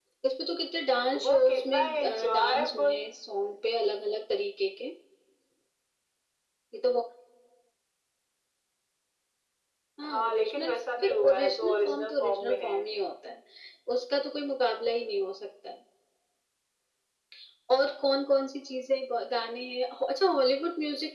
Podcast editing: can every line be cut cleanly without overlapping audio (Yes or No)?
No